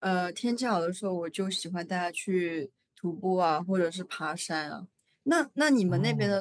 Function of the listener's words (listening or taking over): listening